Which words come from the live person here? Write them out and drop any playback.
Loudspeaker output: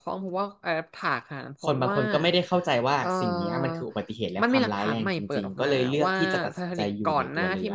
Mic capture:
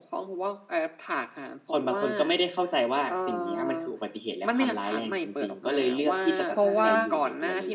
เพราะว่า

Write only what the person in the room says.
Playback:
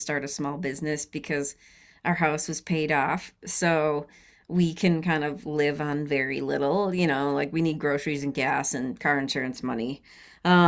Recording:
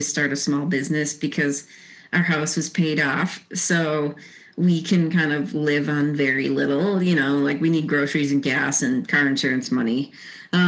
none

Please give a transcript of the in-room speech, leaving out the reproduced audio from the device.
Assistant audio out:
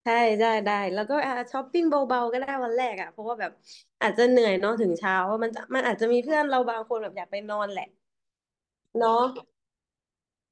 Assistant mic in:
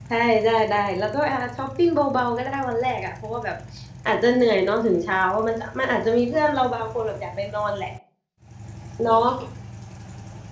none

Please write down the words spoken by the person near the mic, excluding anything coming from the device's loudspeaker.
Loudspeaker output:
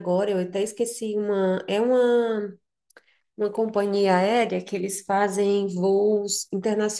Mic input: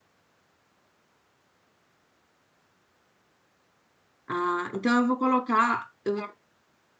Ah, então eu vou colocar. eu-

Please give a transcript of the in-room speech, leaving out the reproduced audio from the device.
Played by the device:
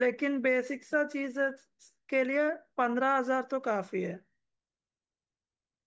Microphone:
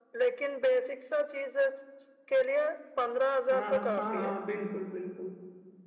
हाँ हाँ हाँ हाँ बिल्कुल बिल्कुल

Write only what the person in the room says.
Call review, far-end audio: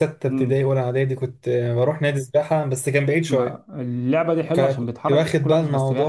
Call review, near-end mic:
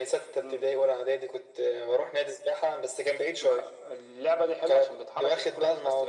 none

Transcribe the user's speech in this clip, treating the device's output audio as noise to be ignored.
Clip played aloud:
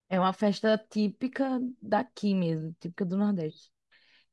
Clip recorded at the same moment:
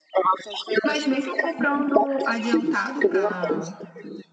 Mas mesmo comprando adiantado para

